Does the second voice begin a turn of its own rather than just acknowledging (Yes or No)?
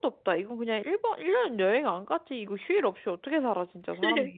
Yes